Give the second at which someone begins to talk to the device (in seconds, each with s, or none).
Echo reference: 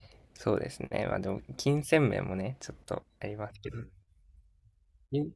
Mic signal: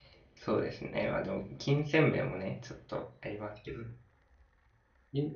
none